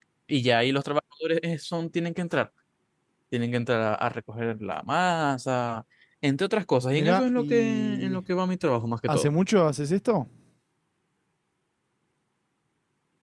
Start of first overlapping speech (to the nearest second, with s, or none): 7 s